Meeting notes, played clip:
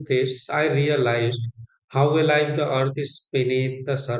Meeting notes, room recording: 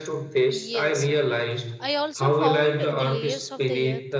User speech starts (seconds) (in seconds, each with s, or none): 0.5 s